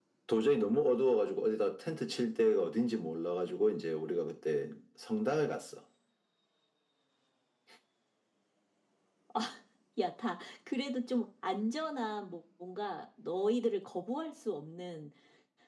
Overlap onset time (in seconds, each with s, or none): none